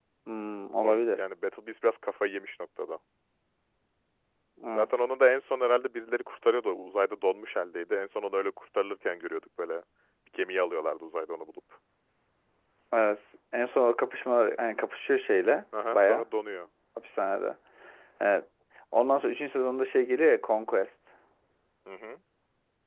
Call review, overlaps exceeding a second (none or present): none